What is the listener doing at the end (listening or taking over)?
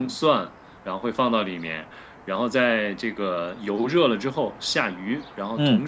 listening